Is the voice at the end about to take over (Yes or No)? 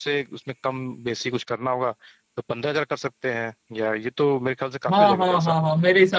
Yes